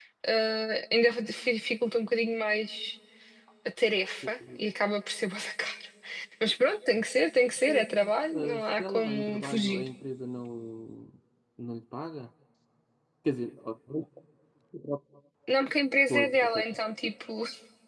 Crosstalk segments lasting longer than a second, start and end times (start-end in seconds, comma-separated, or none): 7.7-9.9